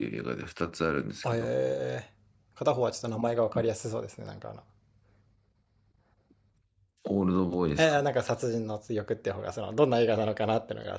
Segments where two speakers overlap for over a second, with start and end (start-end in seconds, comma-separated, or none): none